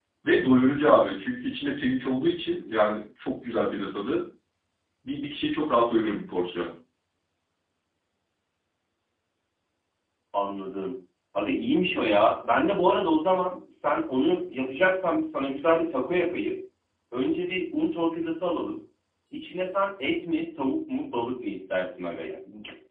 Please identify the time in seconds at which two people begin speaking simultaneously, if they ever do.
none

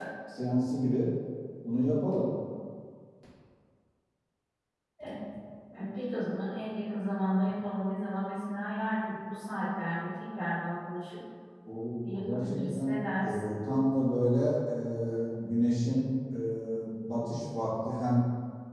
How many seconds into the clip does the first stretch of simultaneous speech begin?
12.0 s

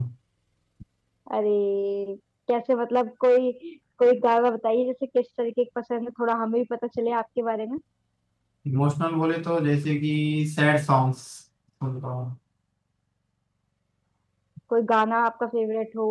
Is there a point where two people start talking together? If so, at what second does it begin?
none

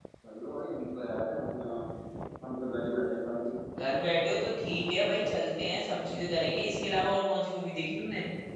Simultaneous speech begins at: none

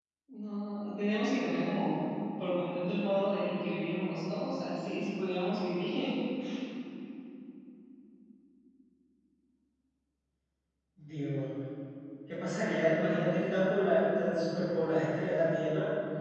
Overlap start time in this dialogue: none

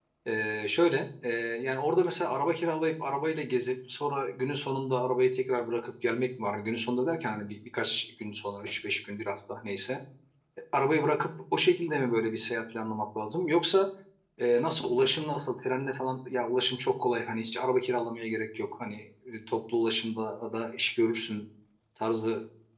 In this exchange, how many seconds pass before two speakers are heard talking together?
none

